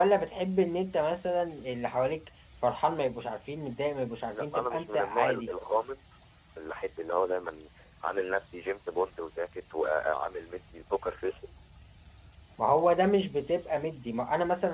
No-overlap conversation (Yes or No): No